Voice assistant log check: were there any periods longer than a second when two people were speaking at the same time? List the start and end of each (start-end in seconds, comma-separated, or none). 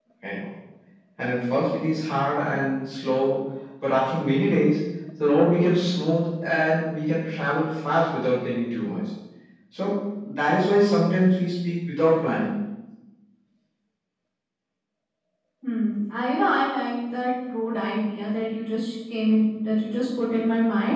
none